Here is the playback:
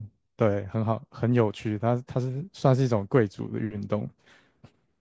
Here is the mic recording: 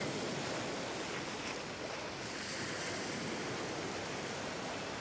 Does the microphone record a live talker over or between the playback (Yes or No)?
No